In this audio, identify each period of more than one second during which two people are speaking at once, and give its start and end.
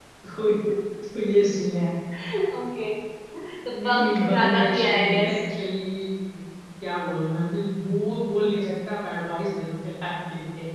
3.6-5.4

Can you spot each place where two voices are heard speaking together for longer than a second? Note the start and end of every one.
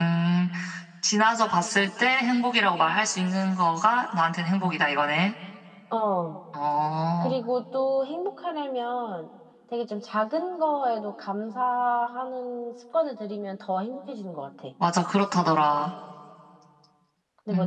none

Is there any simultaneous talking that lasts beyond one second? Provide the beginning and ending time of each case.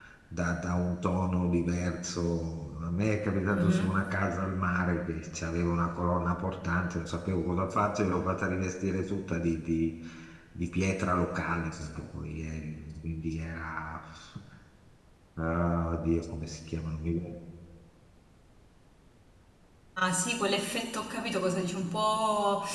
none

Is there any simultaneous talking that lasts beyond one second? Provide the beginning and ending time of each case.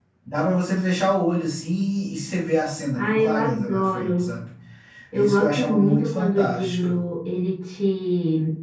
3.0-4.3, 5.1-7.0

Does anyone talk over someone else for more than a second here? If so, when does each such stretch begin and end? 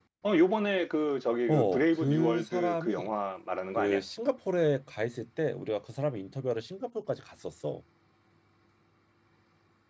1.5-3.1

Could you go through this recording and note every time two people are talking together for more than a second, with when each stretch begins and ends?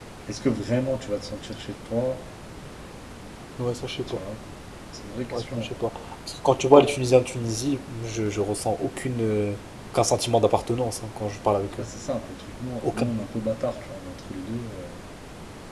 none

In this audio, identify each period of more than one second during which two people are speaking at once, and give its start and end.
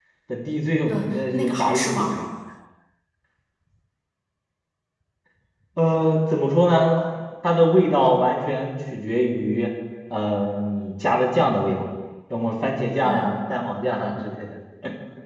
0.9-2.1

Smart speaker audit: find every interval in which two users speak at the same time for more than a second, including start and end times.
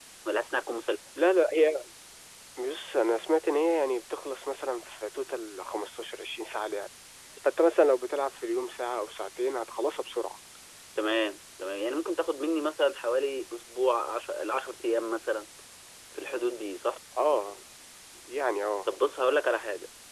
none

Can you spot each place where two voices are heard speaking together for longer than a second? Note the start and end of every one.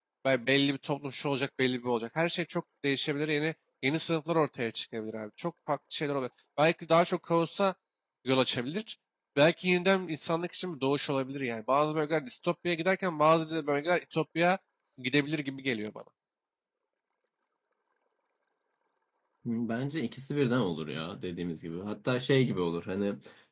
none

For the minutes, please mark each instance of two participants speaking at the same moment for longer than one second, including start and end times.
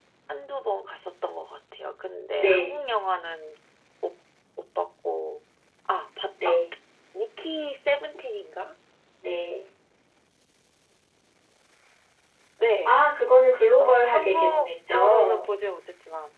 13.8-15.5

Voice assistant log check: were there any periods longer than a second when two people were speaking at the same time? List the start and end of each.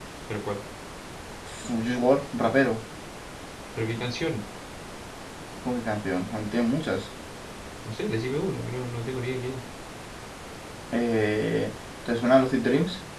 none

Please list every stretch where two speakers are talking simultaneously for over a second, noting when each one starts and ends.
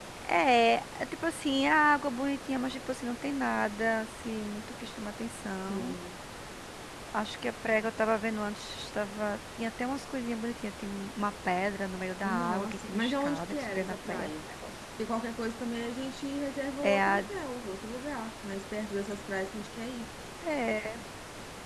12.2-14.3

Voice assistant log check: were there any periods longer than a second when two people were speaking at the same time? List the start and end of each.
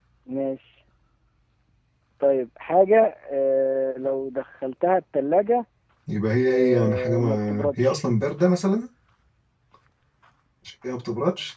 6.5-8.0

